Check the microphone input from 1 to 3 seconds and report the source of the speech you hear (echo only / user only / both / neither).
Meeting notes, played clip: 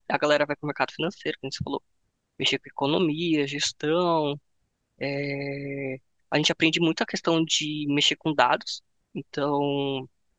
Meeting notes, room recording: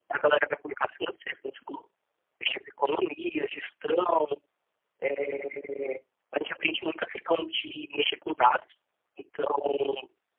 echo only